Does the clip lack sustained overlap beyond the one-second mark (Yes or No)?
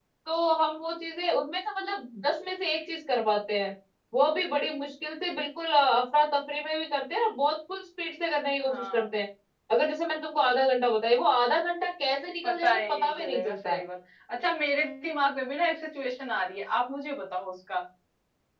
No